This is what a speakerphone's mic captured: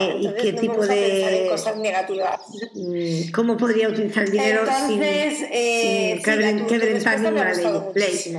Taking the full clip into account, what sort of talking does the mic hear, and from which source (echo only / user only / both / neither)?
both